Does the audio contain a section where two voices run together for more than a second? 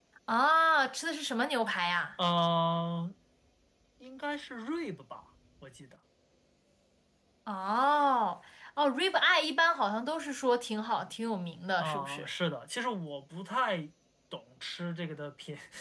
No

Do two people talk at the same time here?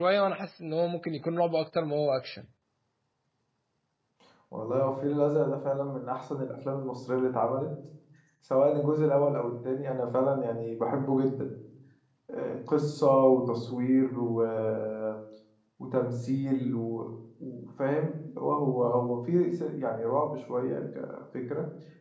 No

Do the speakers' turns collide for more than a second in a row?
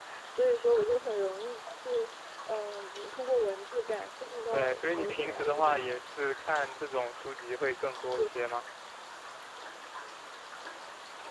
Yes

